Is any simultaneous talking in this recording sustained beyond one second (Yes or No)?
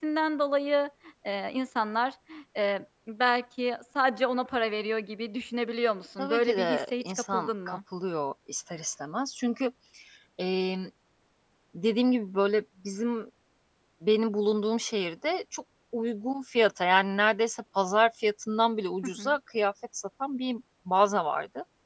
Yes